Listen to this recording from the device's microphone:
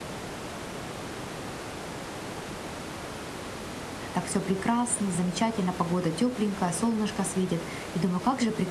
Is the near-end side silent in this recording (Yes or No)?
No